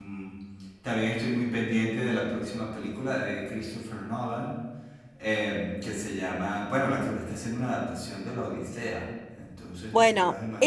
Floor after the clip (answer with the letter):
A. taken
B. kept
A